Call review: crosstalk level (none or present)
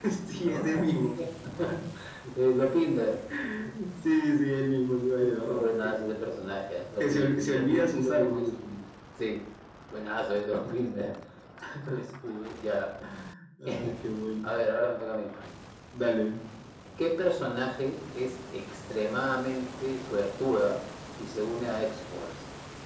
present